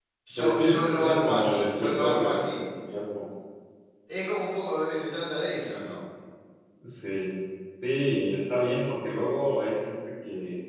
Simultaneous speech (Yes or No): Yes